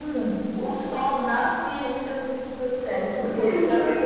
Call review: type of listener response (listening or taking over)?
listening